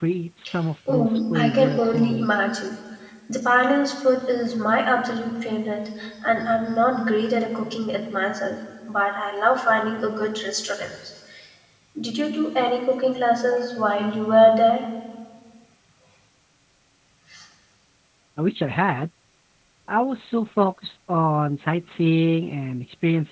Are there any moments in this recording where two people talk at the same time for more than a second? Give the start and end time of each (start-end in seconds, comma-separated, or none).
0.9-2.3